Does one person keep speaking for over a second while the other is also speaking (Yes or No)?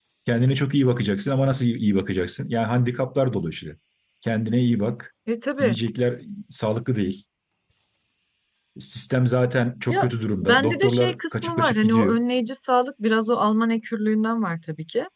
Yes